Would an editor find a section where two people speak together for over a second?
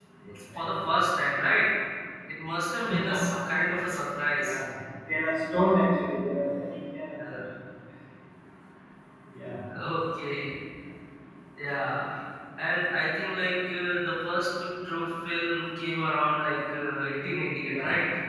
No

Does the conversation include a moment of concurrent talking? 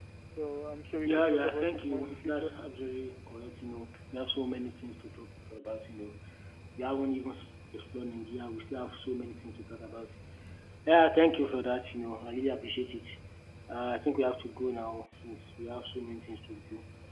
Yes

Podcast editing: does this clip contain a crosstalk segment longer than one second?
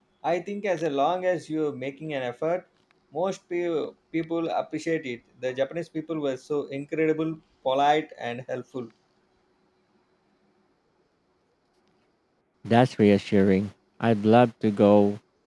No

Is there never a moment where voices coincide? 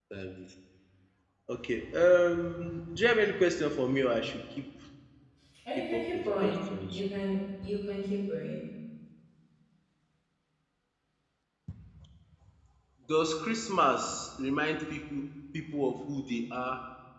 No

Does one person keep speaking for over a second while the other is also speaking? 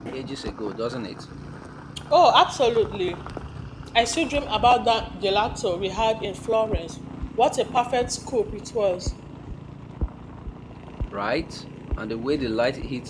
No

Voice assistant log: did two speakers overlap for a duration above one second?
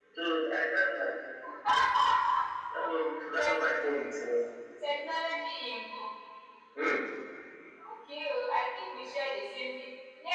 No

